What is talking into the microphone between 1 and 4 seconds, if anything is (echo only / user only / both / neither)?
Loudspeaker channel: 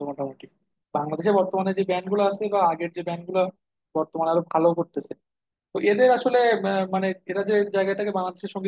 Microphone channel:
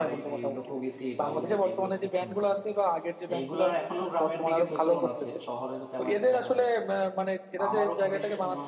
both